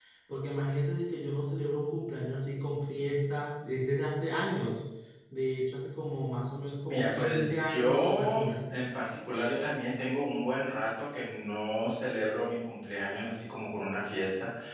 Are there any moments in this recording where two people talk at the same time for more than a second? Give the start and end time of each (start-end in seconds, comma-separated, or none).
6.9-8.8